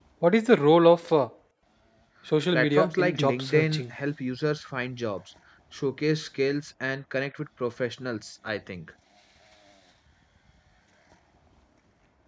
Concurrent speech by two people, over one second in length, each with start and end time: 2.5-3.8

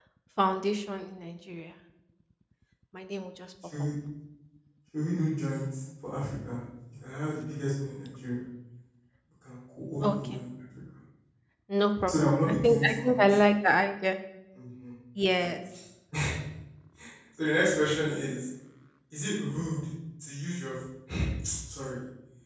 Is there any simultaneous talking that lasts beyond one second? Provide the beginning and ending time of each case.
12.1-13.4

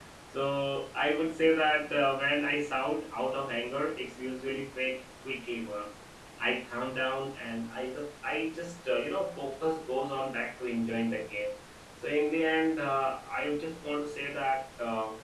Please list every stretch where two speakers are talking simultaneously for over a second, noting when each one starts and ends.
none

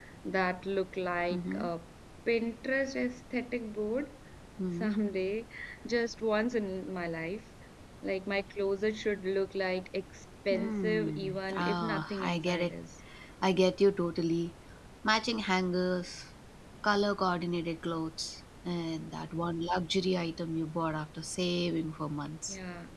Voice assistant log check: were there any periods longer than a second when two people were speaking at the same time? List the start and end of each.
10.5-12.7

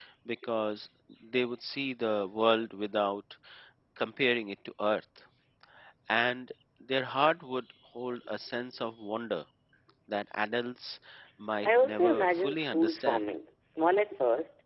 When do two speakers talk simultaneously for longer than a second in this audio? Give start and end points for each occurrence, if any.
11.6-13.2

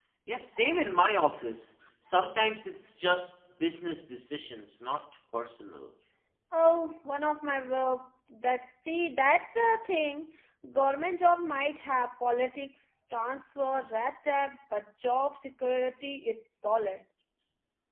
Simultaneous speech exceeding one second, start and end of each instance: none

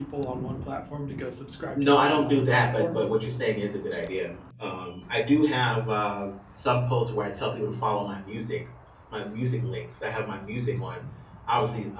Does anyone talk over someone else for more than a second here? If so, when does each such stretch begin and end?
1.7-3.0

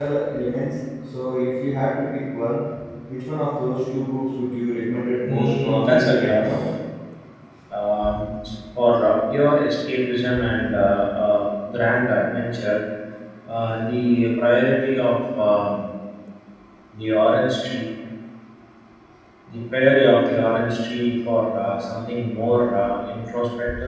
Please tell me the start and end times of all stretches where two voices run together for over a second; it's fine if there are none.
5.3-6.5

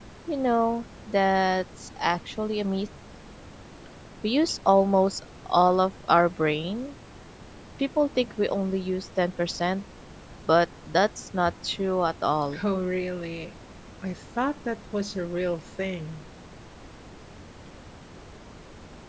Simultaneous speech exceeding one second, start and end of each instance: none

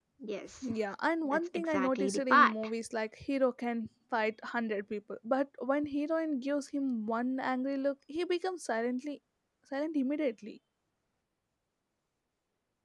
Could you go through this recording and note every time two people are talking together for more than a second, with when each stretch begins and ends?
1.2-2.5

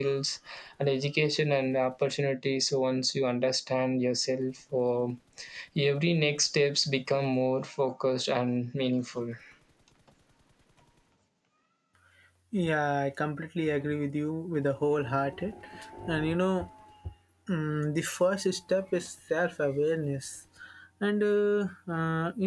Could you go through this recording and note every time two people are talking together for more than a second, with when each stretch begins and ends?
none

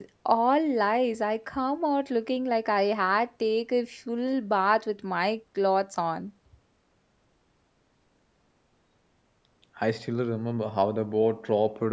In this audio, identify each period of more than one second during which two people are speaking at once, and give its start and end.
none

